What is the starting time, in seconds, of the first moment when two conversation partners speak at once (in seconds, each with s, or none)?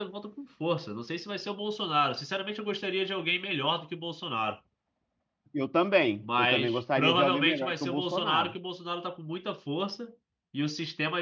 6.2 s